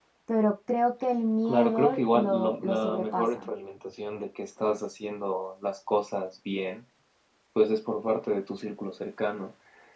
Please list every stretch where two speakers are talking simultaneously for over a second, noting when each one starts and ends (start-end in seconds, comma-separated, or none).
1.4-3.5